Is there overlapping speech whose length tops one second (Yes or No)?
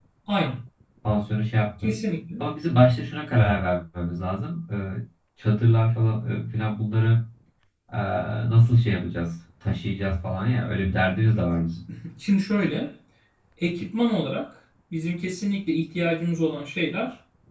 No